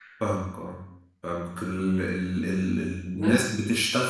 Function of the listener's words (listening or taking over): listening